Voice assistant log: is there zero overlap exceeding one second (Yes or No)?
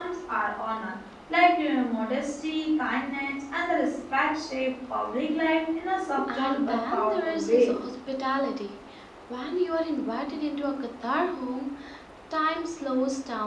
No